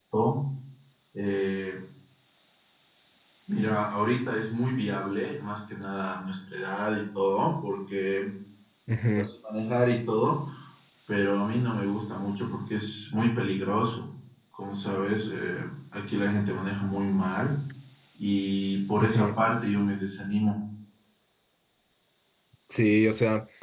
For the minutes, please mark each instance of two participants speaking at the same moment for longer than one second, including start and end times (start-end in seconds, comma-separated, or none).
none